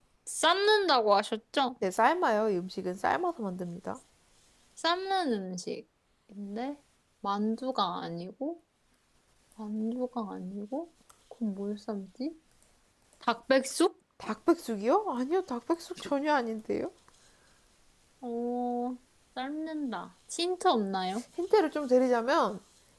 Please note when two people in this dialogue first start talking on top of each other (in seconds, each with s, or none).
none